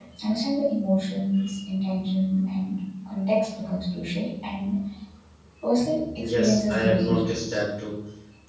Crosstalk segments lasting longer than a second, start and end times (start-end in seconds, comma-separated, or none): 6.2-7.6